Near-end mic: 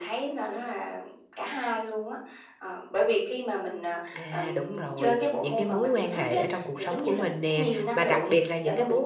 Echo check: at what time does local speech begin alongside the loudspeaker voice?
4 s

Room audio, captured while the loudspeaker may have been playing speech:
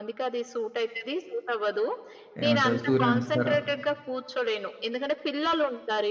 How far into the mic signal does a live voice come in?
2 s

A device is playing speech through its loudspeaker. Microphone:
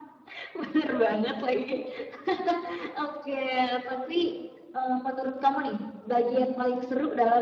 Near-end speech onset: none

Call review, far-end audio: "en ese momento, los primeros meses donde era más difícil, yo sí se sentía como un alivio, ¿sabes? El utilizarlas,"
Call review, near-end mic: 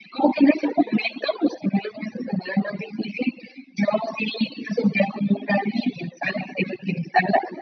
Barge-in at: none

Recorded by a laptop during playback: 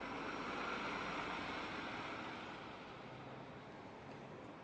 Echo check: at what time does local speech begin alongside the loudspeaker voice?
none

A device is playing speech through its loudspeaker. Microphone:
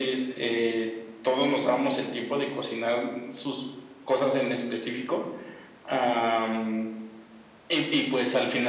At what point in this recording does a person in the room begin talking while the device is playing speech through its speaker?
none

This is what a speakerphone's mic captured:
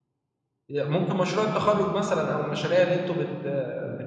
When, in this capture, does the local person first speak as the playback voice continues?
1 s

